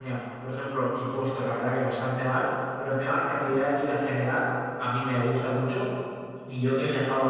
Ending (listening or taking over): listening